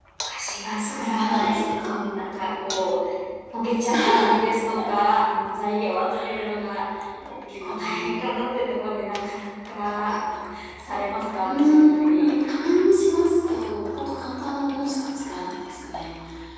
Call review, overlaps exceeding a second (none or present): present